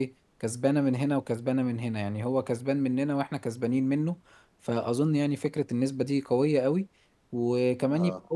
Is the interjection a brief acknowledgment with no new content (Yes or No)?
Yes